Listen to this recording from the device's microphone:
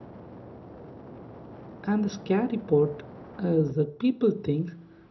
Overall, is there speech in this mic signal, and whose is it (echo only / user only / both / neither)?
user only